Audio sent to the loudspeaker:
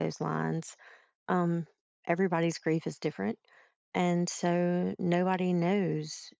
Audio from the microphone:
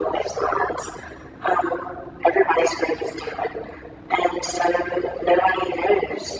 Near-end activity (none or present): none